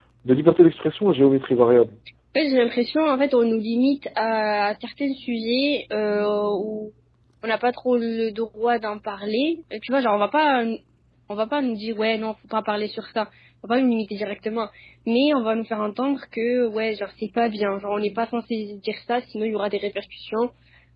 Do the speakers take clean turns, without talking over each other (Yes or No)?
Yes